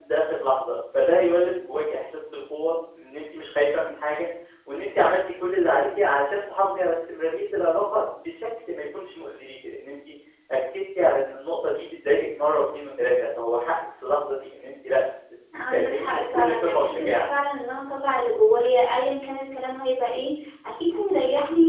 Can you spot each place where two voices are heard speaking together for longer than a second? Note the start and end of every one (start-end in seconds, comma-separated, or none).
15.7-17.1